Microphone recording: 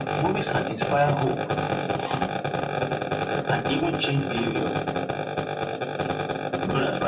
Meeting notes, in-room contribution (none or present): none